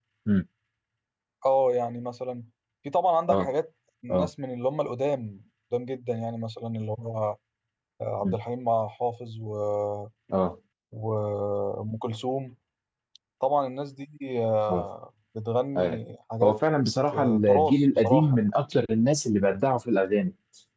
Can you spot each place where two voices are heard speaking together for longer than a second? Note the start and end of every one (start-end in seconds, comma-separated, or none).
17.1-18.5